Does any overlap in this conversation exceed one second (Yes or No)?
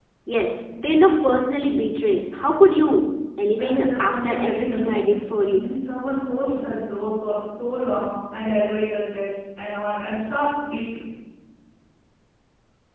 Yes